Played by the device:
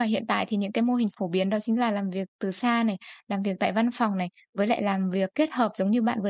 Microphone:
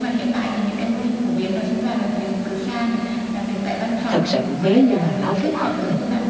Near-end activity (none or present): present